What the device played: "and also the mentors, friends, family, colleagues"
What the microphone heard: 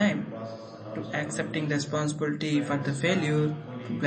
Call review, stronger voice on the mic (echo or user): user